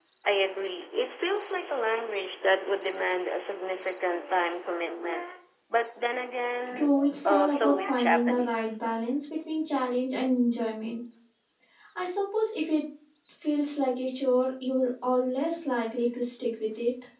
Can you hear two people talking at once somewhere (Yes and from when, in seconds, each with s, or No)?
Yes, from 6.8 s